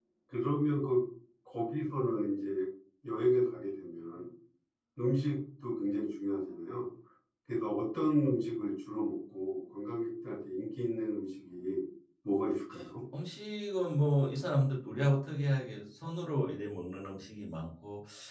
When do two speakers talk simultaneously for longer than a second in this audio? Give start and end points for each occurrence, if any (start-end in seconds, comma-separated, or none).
none